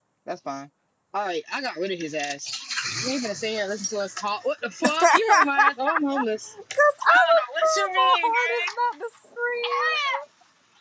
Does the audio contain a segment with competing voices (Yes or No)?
Yes